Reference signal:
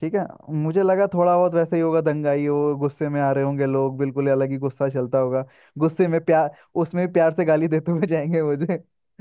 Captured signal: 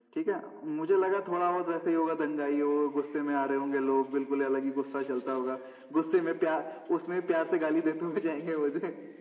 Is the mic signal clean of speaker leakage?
No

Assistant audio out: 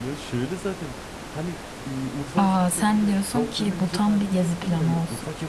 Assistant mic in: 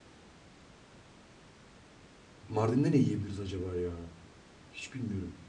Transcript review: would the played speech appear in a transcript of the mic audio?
No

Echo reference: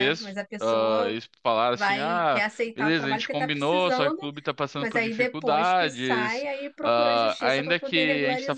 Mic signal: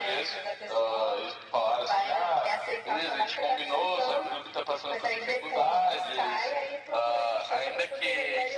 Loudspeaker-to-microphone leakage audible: Yes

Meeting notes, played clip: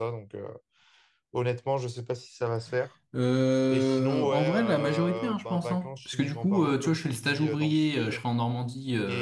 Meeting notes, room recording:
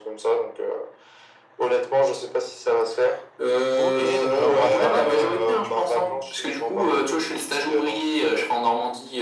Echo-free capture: No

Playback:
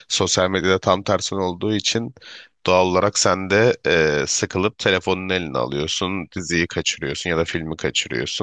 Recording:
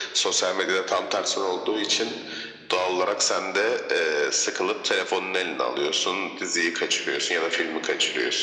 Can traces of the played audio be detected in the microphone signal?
Yes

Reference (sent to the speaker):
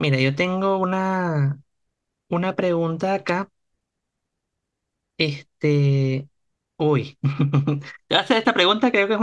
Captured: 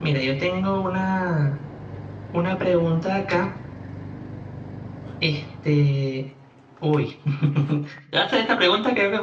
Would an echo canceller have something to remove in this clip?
Yes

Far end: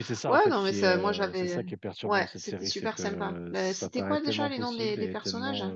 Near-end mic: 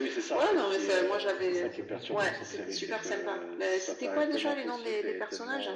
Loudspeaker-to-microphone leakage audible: Yes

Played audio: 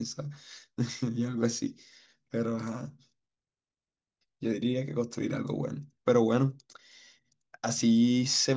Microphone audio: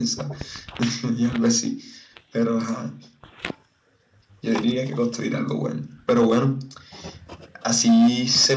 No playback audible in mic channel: No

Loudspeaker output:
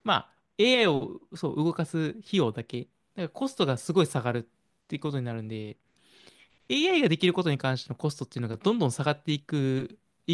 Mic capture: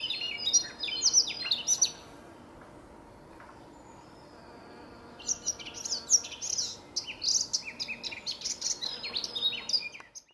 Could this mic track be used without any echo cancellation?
Yes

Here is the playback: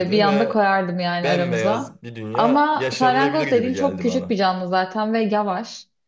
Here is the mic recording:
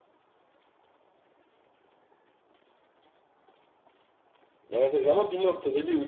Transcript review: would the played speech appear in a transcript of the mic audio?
No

